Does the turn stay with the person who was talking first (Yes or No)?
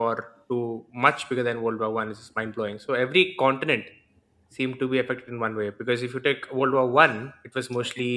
Yes